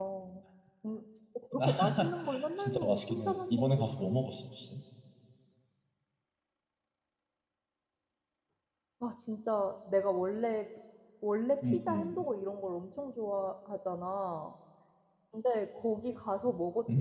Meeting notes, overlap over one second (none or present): present